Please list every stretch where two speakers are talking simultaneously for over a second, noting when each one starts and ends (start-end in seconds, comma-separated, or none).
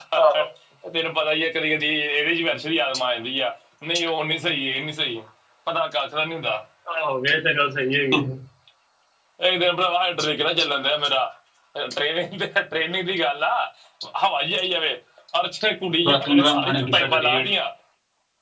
16.1-17.5